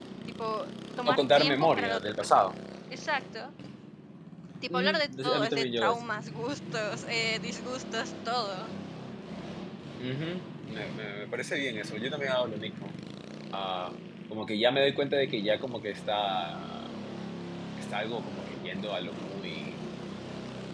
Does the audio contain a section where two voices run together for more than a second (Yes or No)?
Yes